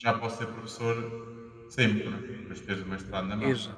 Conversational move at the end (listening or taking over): taking over